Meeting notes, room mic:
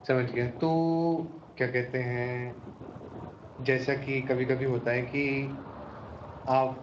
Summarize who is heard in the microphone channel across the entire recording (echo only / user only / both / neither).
user only